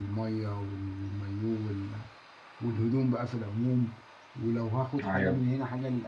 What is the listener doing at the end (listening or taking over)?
listening